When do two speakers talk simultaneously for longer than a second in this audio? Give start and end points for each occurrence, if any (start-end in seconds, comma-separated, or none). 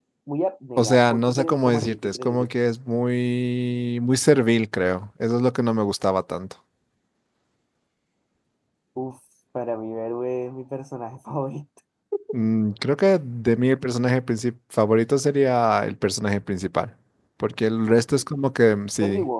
0.8-2.5